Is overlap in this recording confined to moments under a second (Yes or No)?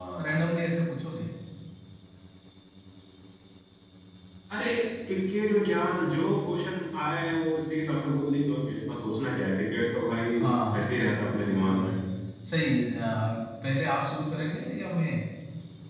No